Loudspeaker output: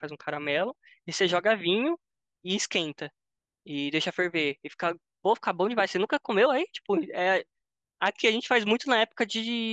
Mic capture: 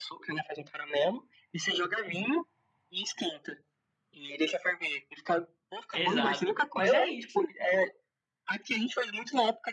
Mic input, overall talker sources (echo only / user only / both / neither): both